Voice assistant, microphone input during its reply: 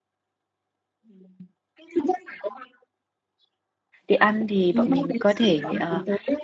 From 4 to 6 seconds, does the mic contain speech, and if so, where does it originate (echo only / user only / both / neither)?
both